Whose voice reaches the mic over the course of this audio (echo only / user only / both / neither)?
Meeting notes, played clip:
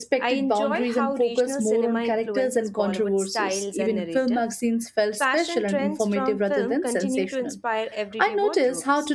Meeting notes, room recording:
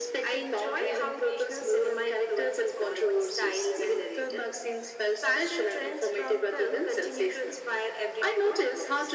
echo only